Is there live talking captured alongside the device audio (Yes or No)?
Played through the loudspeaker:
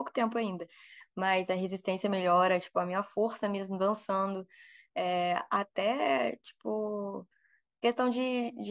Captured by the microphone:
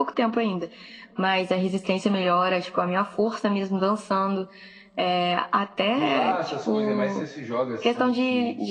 Yes